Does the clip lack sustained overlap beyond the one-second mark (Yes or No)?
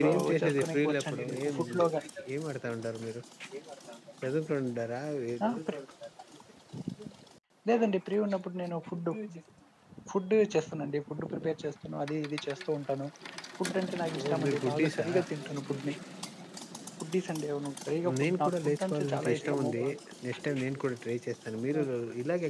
No